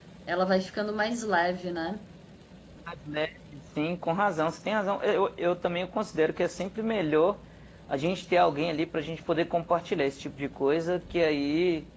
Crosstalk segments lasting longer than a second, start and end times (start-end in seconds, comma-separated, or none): none